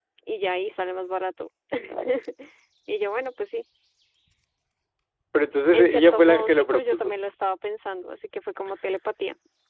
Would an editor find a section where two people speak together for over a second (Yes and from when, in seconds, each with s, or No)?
Yes, from 5.7 s